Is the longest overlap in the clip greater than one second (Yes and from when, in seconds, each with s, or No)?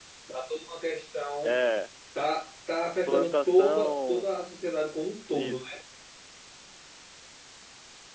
Yes, from 3.1 s